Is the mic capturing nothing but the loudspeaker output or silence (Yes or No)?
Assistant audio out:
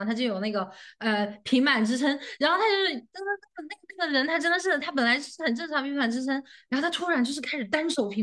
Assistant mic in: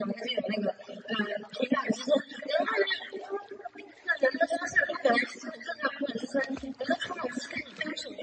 Yes